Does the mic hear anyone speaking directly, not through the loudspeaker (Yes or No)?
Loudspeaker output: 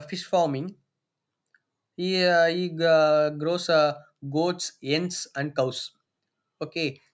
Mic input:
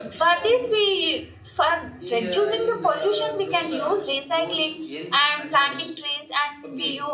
Yes